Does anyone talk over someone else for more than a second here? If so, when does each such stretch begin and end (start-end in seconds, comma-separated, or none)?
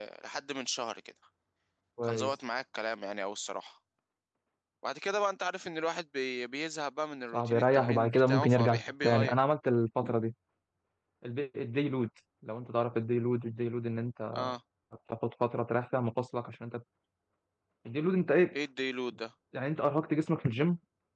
7.3-9.3